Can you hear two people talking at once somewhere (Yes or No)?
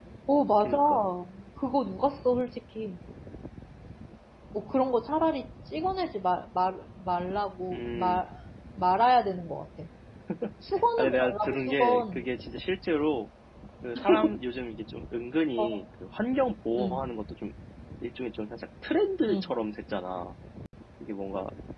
Yes